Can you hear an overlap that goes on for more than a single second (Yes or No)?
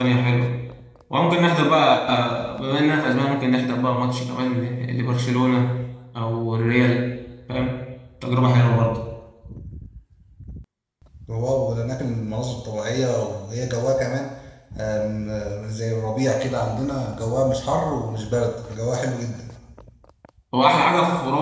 No